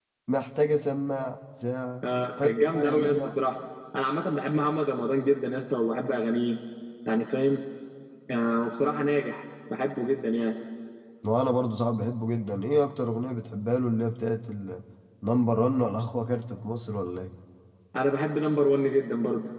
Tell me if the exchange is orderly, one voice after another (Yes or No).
No